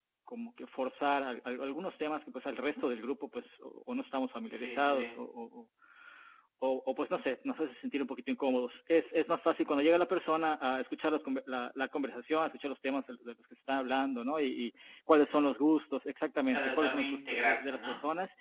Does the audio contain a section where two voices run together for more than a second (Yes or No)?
Yes